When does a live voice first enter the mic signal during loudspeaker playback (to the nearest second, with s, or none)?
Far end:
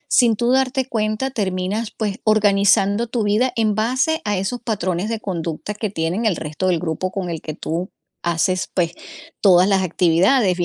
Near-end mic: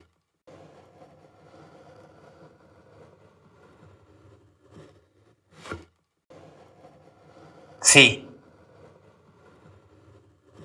8 s